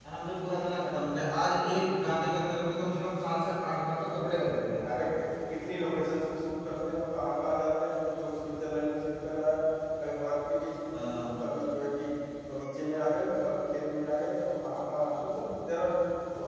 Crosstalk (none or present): none